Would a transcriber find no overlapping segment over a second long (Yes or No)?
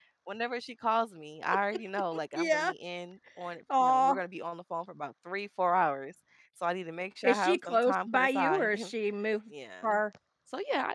No